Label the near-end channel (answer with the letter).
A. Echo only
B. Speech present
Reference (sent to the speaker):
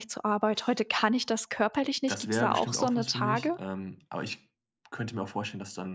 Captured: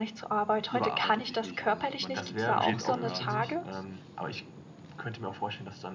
B